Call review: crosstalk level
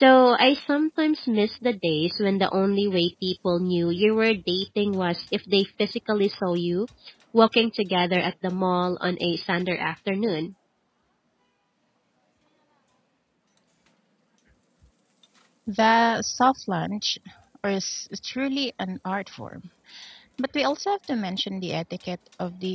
none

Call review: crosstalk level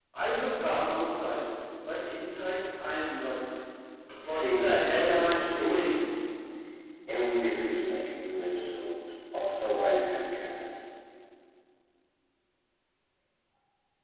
present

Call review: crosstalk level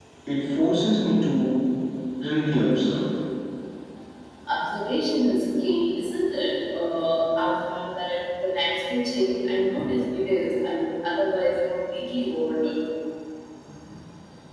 none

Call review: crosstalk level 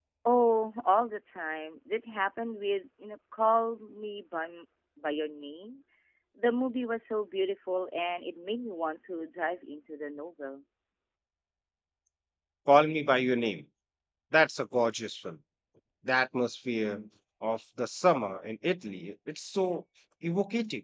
none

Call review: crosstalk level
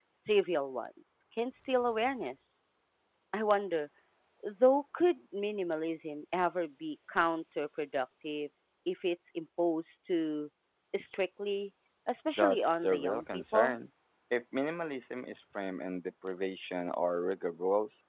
present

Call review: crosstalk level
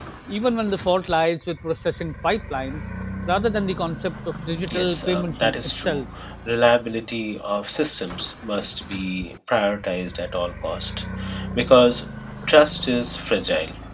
present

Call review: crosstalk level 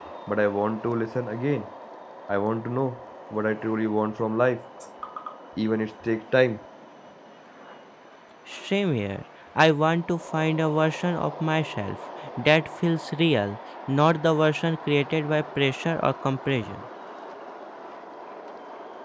none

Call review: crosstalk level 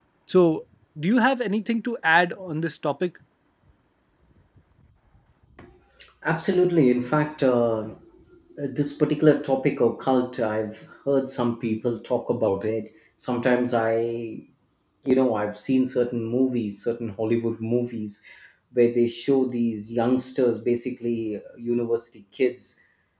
none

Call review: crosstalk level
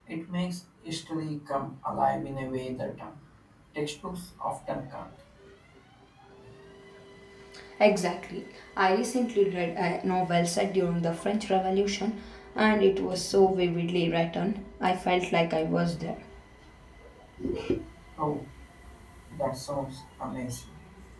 none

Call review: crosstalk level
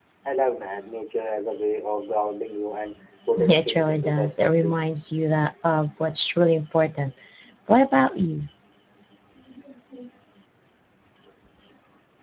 present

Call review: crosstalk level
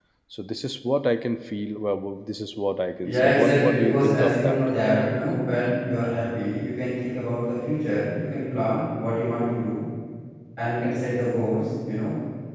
present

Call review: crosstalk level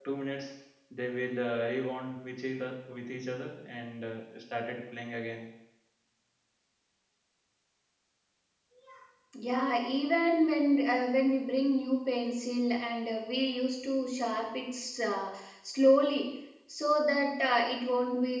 none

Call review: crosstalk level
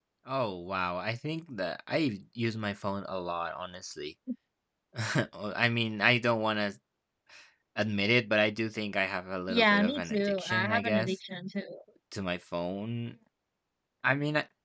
present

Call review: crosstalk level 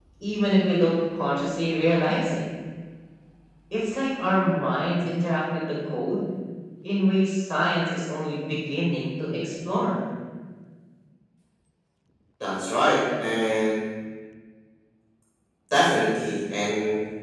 none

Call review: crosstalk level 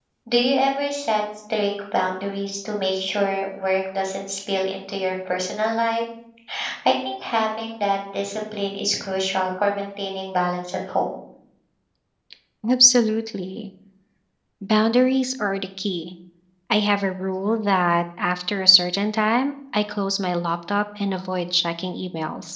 none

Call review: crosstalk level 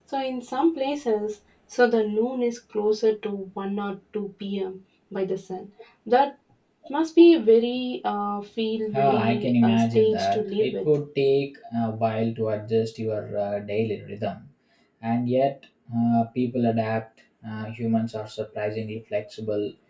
present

